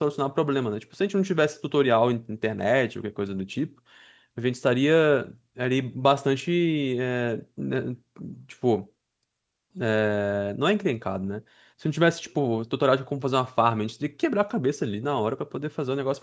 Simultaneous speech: No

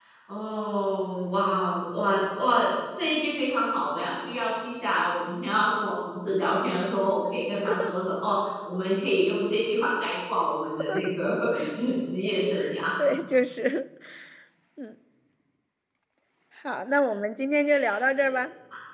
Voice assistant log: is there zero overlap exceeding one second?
Yes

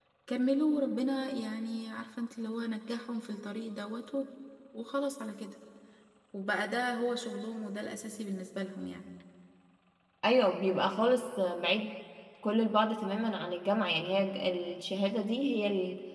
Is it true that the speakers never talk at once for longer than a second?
Yes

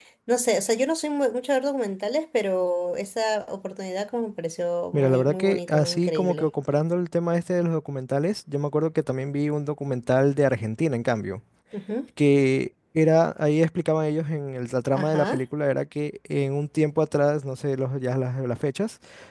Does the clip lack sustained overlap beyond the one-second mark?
No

